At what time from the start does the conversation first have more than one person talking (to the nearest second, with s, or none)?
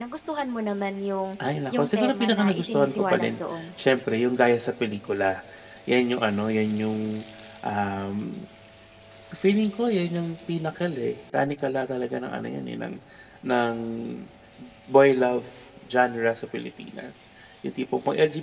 2 s